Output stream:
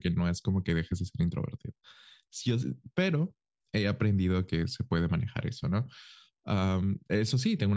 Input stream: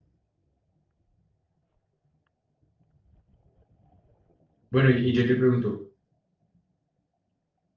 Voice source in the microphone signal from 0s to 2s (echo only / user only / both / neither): neither